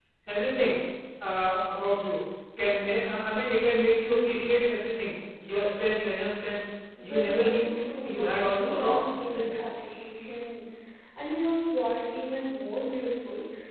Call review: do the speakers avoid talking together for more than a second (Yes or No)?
No